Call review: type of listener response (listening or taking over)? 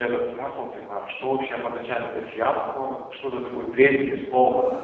listening